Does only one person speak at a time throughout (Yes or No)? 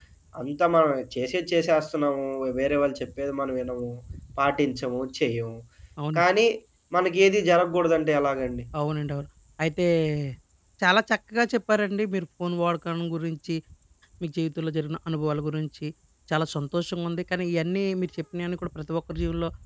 Yes